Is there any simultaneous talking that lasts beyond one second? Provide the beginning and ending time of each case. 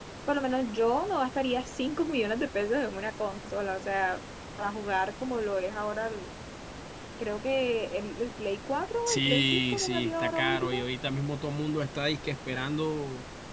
9.1-10.8

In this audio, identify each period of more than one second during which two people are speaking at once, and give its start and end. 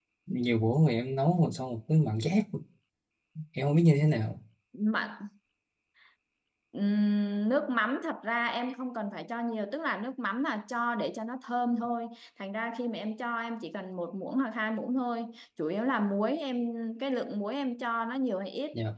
none

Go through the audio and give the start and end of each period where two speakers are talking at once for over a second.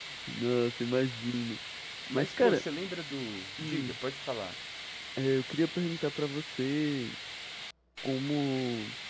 none

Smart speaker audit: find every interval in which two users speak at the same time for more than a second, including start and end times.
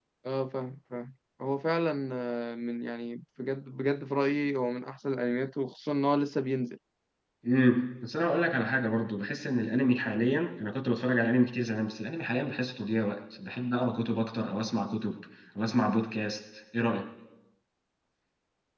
none

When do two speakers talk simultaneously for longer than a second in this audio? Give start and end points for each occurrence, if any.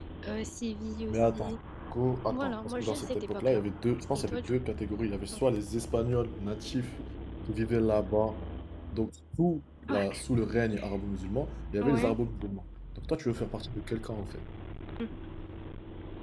2.3-3.6

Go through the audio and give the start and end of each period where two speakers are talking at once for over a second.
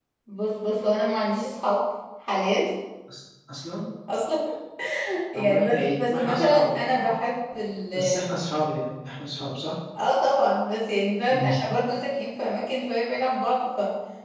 5.4-6.8

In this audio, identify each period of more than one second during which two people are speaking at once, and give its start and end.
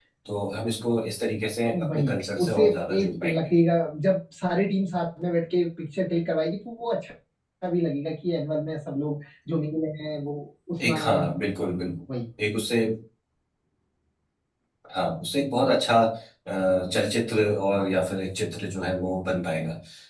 1.7-3.4

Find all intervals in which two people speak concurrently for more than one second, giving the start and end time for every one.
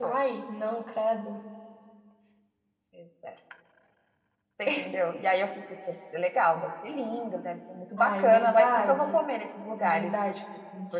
8.0-9.2

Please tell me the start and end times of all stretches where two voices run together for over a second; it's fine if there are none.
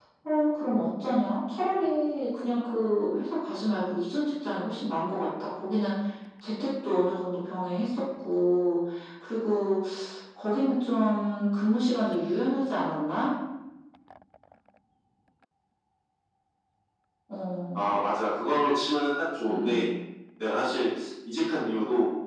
none

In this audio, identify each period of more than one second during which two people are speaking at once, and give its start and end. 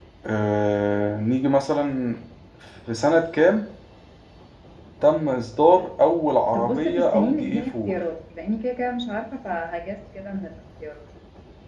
6.5-8.0

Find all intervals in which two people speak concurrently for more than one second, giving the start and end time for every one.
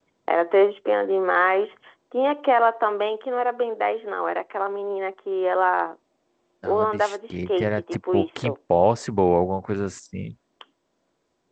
6.7-8.5

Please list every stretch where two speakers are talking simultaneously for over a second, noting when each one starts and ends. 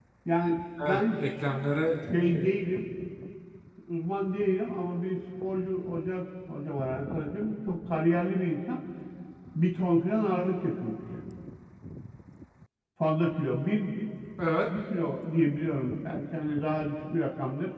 none

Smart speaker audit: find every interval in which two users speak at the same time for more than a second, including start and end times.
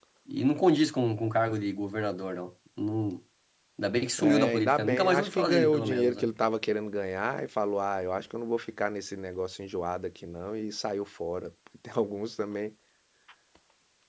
4.2-6.3

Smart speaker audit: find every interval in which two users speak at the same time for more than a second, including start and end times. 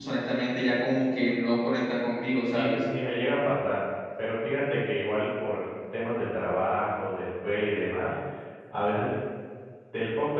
none

